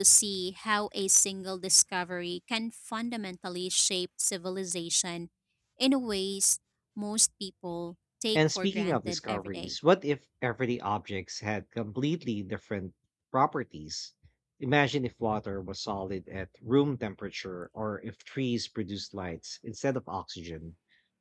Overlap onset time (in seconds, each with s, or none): 8.3 s